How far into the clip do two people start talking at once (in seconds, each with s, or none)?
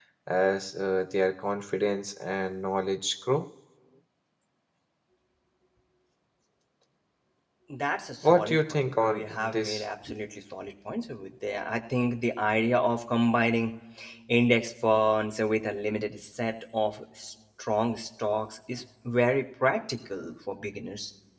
8.2 s